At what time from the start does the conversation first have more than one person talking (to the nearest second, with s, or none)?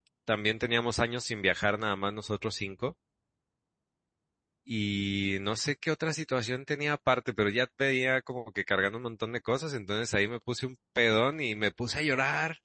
none